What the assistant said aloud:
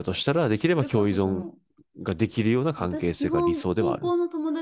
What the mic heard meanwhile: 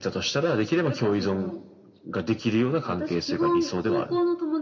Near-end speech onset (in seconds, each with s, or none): none